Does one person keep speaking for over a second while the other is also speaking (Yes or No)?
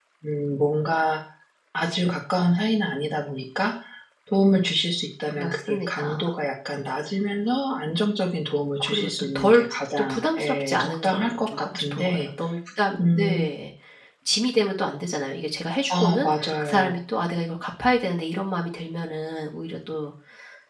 Yes